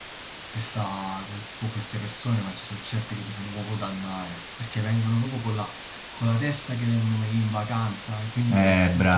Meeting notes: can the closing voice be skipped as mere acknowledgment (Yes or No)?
No